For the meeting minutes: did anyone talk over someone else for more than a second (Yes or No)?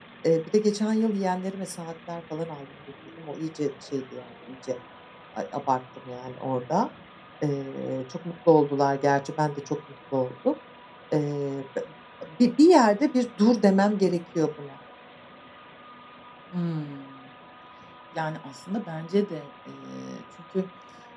No